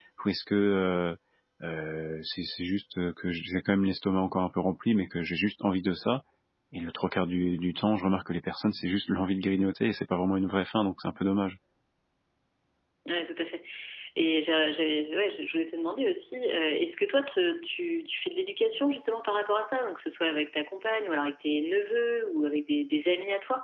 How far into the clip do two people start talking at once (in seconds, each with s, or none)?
none